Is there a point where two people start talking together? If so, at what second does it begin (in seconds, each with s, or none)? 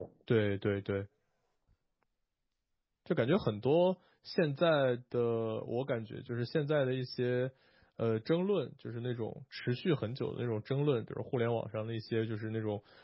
none